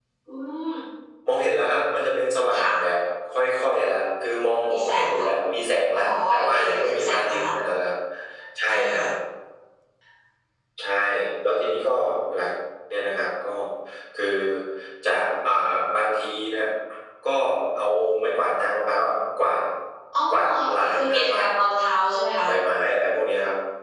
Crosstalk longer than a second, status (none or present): present